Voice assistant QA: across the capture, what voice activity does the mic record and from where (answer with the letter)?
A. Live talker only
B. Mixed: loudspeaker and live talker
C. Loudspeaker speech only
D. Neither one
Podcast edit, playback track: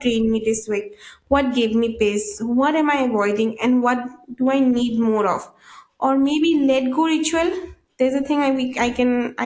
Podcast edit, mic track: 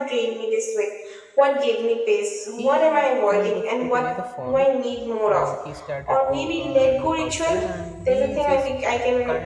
B